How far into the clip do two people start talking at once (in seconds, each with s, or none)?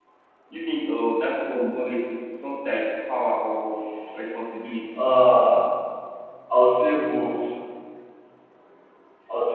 none